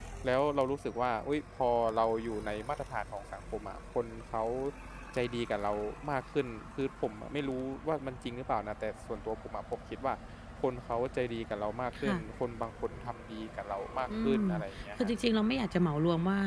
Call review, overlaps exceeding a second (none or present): none